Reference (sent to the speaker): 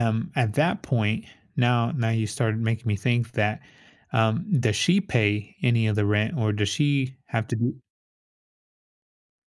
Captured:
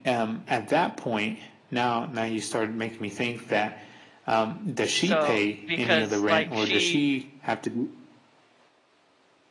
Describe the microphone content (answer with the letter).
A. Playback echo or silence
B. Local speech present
B